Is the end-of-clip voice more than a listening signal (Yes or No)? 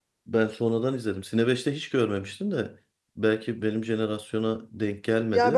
Yes